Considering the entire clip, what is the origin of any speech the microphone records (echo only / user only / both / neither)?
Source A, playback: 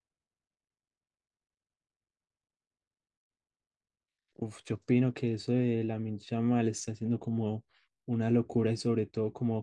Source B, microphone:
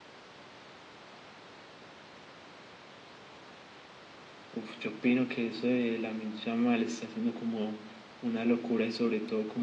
echo only